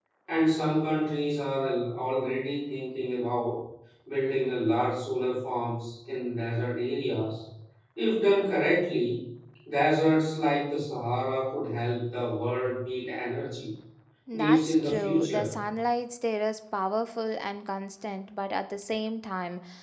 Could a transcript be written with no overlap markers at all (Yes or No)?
No